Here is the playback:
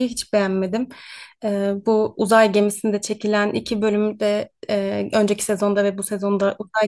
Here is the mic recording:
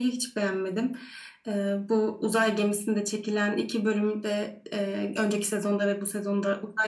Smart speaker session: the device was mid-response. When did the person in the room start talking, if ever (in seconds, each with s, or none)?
none